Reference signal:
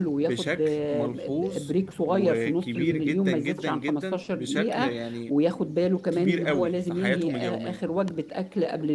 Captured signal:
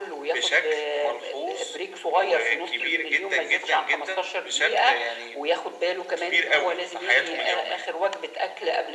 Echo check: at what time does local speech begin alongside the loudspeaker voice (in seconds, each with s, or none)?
none